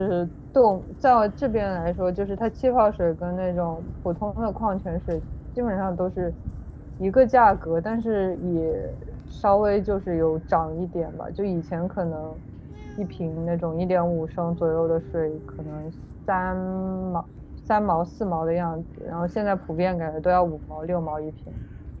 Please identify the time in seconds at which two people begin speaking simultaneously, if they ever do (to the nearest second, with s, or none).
none